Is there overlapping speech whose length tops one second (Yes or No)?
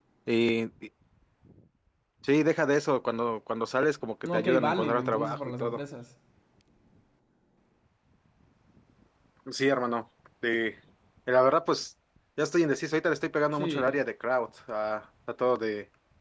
Yes